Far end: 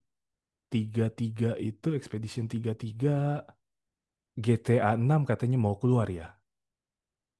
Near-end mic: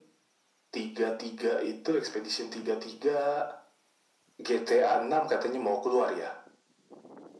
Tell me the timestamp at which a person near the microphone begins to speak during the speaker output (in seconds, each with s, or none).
none